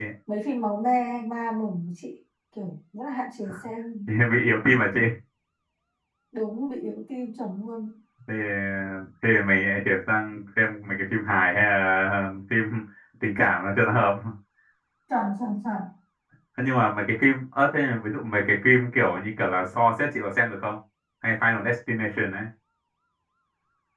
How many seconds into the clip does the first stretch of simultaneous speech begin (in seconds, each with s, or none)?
none